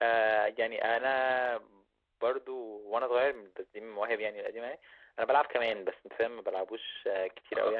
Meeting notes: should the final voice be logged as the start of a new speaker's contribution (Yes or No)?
Yes